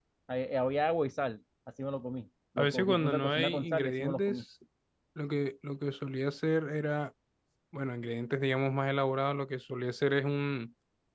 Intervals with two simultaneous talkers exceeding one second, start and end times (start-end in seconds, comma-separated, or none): 2.6-4.4